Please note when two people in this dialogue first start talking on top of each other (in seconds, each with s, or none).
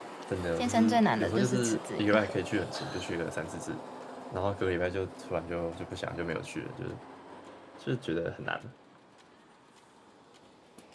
0.6 s